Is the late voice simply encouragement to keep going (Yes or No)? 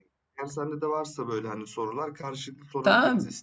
No